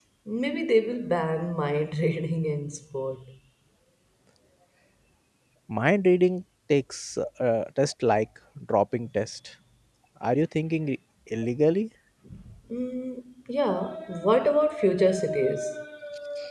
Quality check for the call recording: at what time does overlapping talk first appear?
none

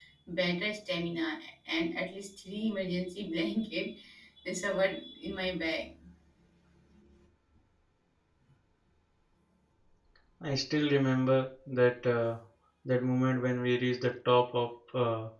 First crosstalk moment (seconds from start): none

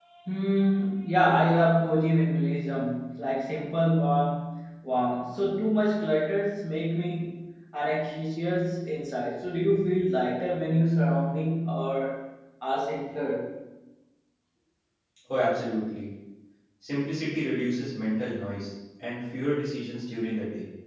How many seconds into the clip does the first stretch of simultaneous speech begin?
none

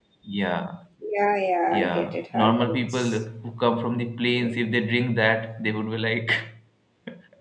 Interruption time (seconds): 1.7 s

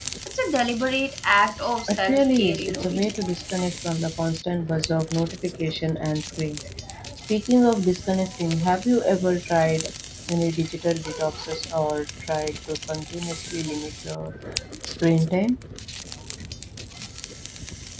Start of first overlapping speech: 1.9 s

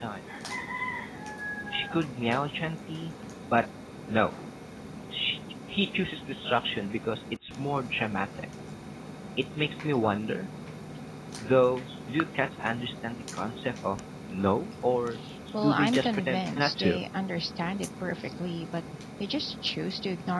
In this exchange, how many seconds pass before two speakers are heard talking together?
15.6 s

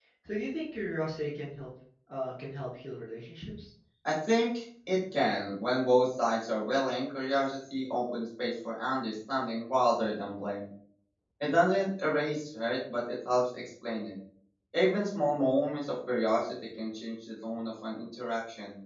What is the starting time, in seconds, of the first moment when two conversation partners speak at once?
none

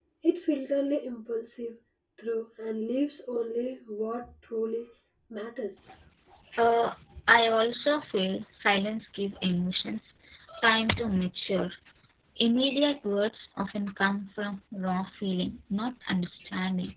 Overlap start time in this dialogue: none

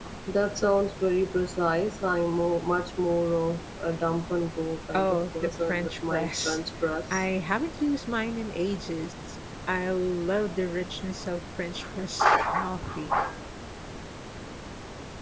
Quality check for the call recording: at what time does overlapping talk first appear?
4.9 s

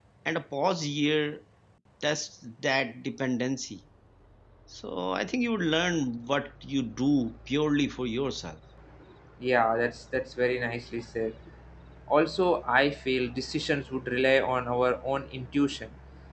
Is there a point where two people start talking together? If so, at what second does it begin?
none

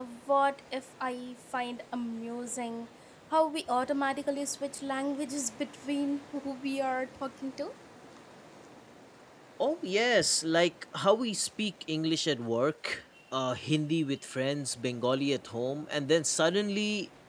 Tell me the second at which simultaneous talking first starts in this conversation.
none

